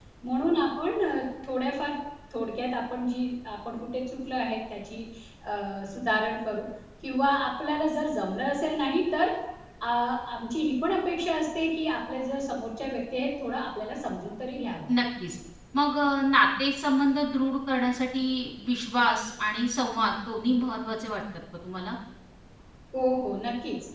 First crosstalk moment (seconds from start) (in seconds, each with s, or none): none